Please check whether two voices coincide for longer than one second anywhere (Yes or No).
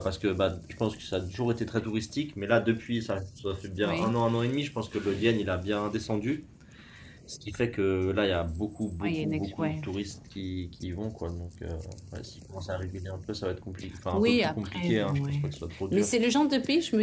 Yes